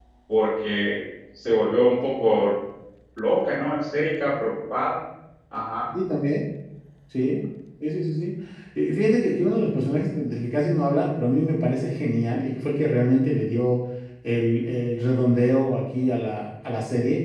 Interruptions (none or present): none